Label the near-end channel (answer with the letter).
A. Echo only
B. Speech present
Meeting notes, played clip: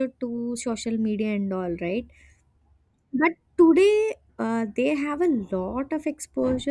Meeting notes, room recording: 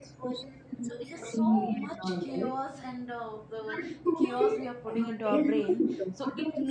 B